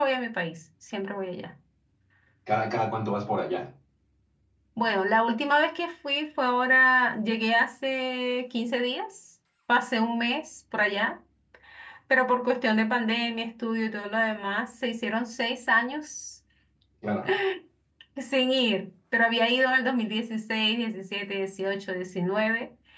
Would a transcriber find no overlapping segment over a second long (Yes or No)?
Yes